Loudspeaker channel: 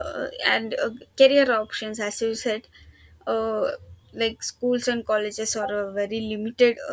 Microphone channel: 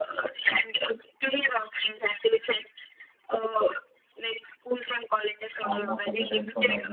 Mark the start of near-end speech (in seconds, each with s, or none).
5.6 s